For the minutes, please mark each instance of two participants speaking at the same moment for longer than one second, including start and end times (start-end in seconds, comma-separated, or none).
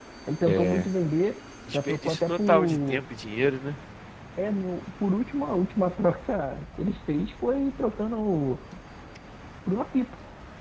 1.7-3.0